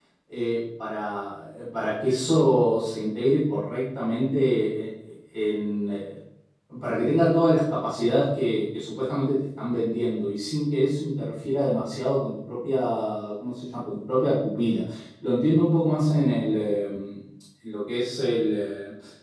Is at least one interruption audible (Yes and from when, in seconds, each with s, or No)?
No